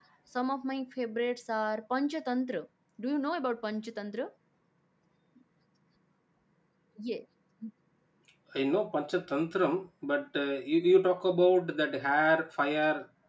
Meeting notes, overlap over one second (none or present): none